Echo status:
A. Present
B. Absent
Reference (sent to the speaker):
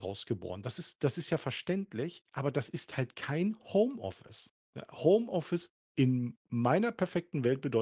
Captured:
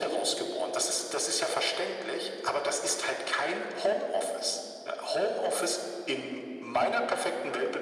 A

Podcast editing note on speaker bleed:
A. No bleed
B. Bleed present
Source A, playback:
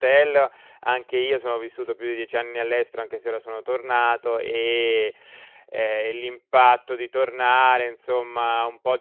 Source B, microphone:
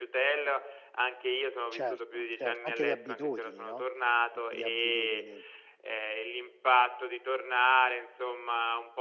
B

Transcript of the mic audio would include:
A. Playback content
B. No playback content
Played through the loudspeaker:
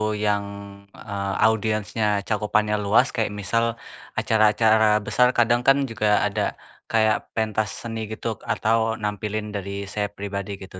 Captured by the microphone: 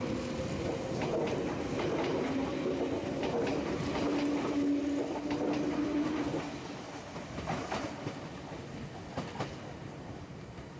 B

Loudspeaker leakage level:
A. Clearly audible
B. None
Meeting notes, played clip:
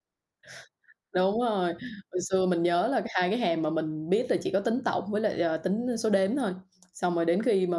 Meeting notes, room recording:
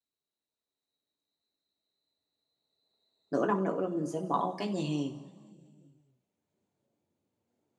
B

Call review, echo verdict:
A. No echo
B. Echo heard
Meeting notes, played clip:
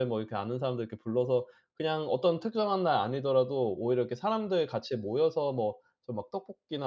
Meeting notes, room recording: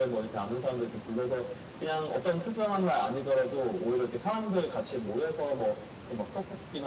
B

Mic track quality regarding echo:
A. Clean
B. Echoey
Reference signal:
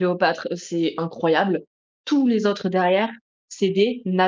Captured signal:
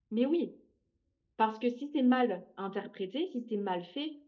A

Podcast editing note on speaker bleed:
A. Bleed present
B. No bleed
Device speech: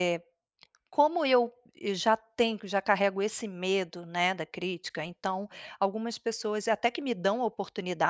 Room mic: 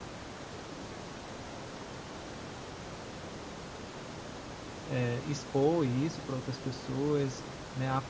B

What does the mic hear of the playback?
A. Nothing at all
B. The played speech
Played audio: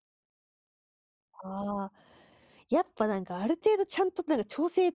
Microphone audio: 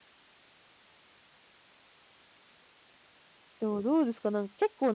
A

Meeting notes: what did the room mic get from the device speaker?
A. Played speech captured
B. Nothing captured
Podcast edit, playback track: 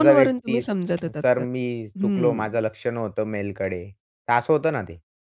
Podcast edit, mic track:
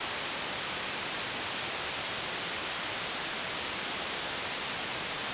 B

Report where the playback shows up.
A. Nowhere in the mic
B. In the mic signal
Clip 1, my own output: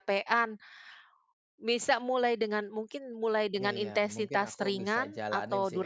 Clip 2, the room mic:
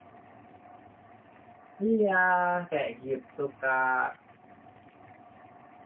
A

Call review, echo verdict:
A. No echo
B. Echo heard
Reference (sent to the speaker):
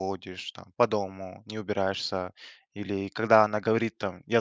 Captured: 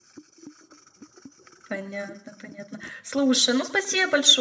A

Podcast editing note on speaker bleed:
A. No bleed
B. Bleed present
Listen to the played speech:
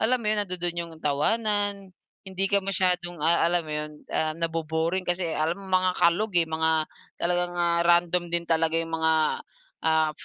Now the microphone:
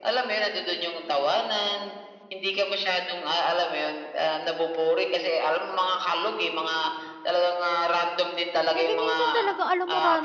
B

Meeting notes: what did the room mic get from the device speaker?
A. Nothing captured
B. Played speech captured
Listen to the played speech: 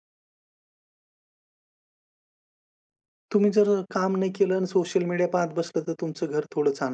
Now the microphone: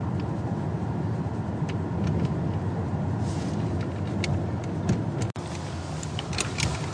A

